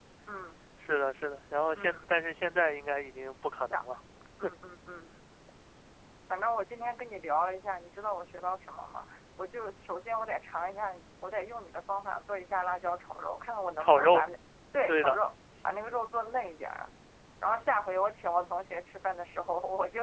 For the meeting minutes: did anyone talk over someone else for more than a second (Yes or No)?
No